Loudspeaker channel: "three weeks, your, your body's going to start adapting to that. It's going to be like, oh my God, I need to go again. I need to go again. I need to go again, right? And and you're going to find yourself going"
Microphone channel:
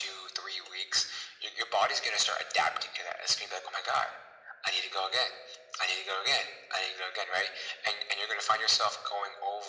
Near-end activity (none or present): none